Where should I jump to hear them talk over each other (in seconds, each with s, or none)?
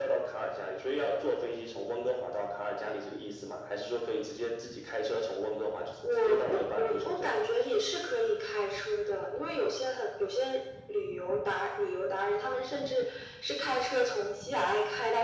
6.0 s